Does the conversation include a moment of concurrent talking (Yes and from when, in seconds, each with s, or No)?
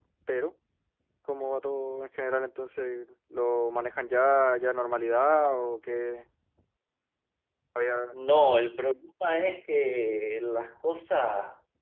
No